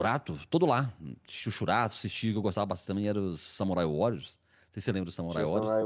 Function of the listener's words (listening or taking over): taking over